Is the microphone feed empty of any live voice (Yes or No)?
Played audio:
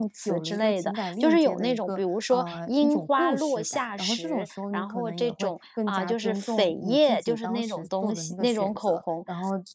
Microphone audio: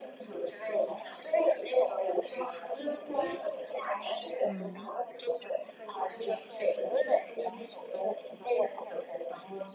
No